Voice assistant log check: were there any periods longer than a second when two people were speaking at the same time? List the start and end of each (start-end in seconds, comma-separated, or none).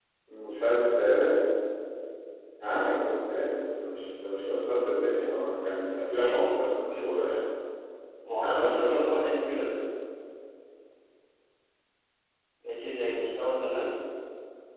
8.4-9.7